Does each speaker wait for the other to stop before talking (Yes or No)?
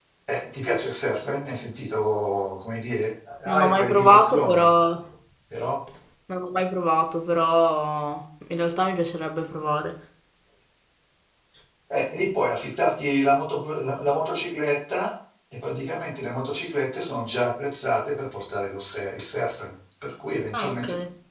No